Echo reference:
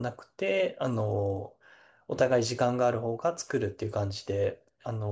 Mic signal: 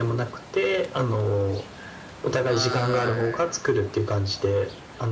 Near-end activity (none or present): present